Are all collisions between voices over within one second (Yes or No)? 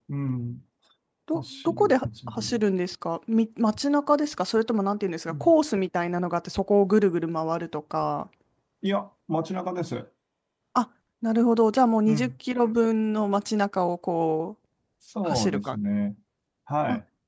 No